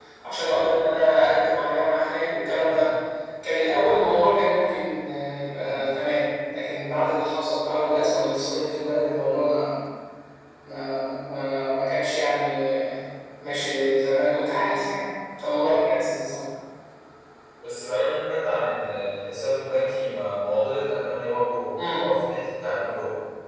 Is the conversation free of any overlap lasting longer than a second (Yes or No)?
Yes